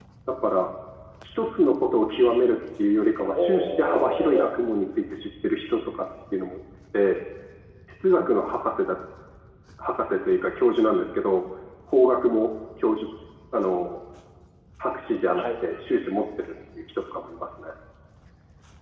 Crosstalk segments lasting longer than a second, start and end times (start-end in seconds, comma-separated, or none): 3.2-4.5